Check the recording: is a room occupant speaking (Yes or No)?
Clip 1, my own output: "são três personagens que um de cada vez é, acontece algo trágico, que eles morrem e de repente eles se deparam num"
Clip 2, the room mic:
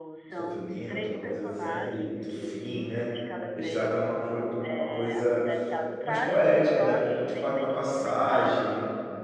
Yes